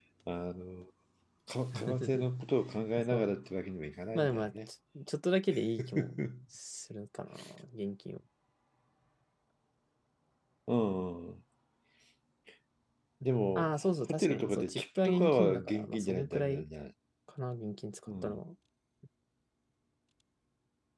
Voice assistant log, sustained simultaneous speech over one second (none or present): present